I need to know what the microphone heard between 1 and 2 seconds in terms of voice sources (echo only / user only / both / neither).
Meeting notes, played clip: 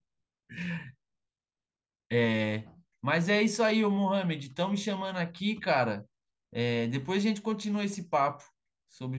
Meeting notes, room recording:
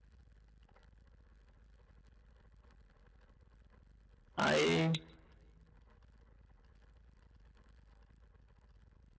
neither